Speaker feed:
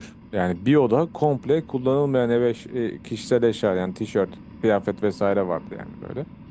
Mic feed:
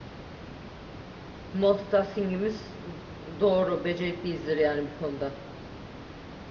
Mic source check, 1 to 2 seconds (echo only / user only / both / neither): user only